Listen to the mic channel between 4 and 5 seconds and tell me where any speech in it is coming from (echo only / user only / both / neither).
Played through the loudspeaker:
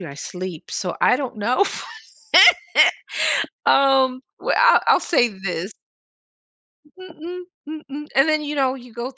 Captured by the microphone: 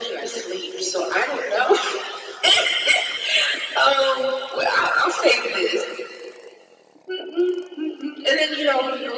echo only